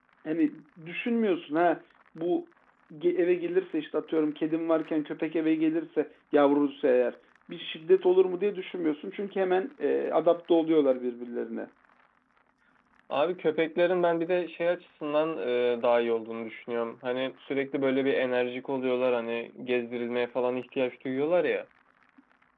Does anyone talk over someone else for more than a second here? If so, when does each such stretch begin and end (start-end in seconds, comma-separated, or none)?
none